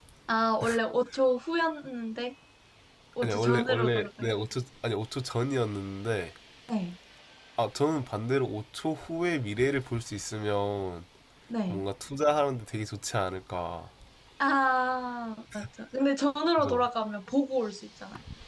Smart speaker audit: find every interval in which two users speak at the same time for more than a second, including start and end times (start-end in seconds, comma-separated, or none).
3.2-4.5